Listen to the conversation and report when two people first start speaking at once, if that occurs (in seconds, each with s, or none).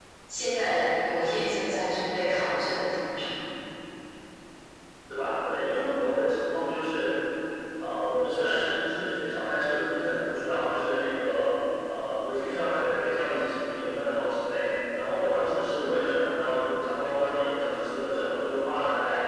none